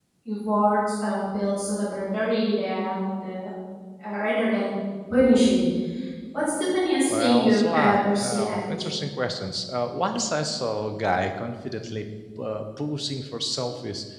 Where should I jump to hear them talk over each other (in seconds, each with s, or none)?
7.1 s